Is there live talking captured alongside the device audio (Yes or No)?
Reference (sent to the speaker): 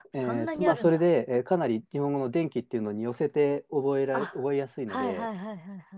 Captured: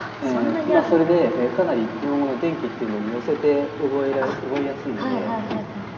No